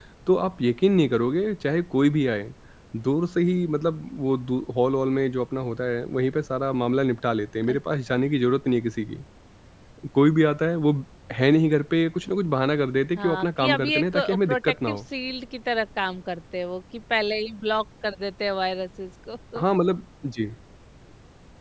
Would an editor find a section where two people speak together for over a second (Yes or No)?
Yes